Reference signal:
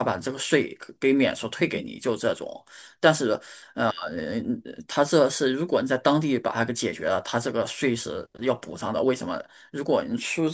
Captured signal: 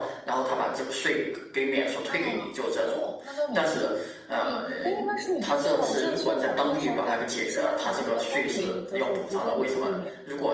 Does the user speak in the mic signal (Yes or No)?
Yes